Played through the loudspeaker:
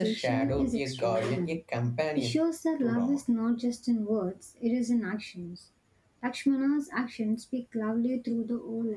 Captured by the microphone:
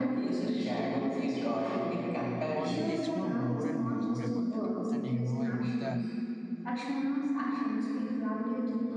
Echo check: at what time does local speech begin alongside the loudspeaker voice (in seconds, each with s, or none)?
2.5 s